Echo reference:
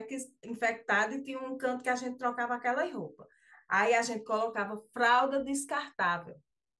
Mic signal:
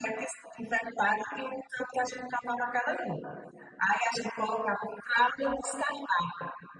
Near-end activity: none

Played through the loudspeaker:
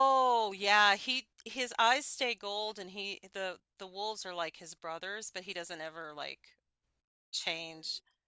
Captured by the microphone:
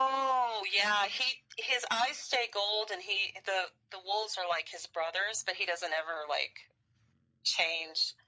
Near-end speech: none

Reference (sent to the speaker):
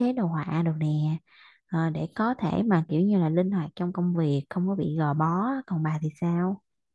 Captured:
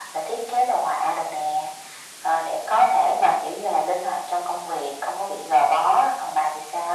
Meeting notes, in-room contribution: none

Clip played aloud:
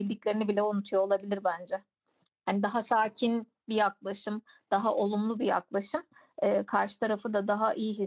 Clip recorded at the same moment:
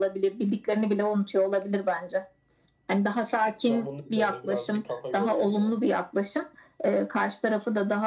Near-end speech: present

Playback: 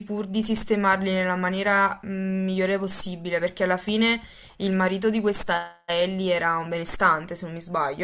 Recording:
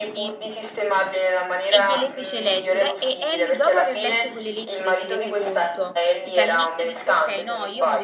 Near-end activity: present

